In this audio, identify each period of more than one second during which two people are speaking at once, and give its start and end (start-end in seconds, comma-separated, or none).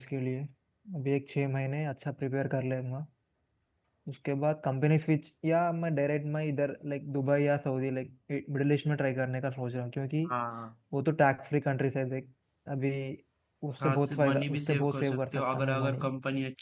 13.8-16.0